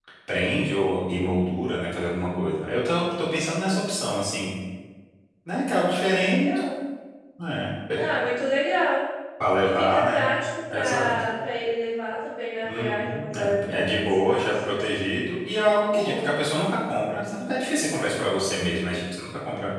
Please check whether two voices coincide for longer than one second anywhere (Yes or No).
Yes